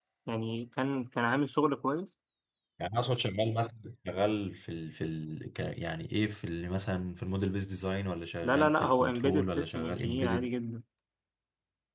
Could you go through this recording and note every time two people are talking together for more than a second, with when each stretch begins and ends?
8.4-10.5

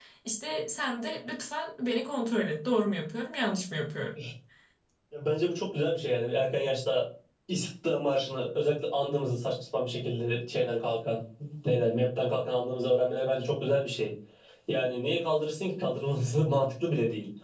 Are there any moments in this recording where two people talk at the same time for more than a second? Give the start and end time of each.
none

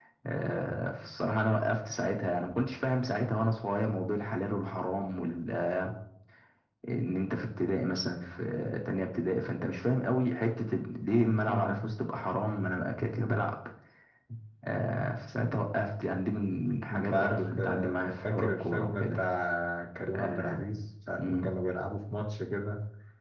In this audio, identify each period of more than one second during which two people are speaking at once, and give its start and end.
16.9-19.2

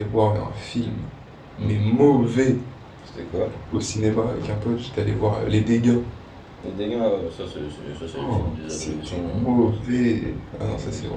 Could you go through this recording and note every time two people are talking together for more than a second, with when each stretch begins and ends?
8.2-9.8

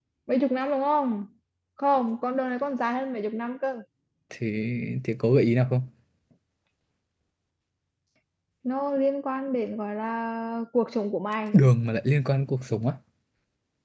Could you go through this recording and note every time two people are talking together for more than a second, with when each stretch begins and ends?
none

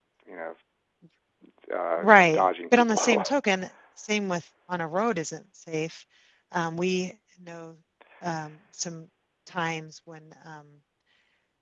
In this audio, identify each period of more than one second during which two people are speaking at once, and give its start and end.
2.0-3.2

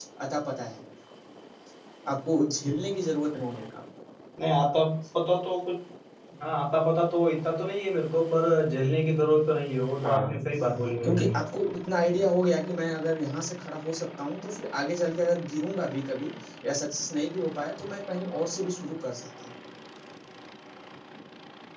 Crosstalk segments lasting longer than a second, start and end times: none

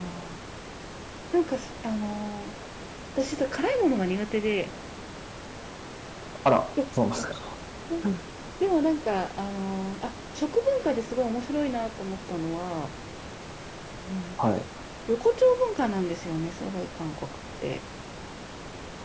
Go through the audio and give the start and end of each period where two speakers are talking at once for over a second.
none

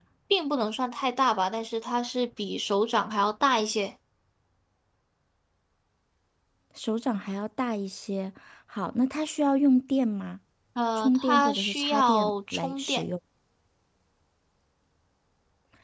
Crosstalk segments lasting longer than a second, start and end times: 11.0-13.0

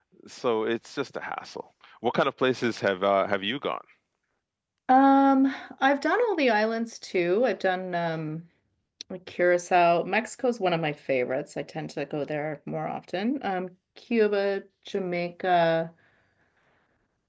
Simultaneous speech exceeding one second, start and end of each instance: none

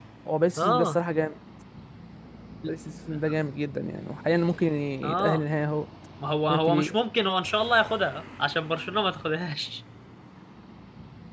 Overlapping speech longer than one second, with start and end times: none

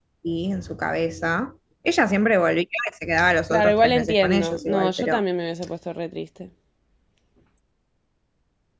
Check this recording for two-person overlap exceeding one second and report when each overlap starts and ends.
3.5-5.2

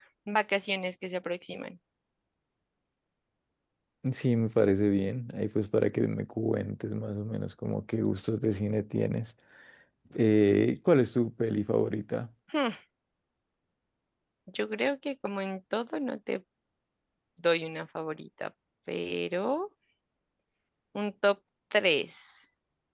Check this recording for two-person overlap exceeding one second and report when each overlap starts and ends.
none

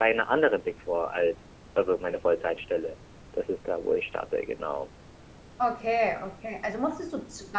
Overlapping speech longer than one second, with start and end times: none

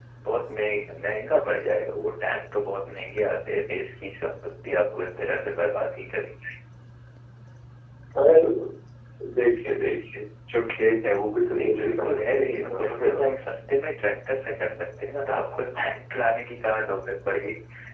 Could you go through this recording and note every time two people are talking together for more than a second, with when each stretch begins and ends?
11.5-13.3

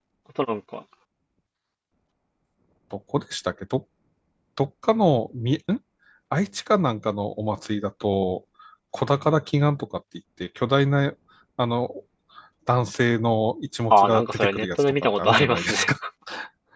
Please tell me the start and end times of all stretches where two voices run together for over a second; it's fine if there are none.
13.9-15.9

